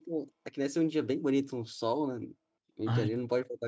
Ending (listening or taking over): listening